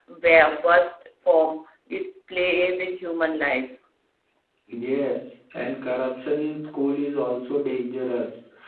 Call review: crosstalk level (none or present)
none